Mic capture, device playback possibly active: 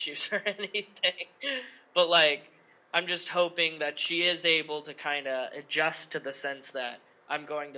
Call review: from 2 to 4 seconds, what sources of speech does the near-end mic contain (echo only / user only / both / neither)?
echo only